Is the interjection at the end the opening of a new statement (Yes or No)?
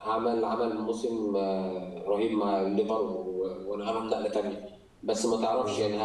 No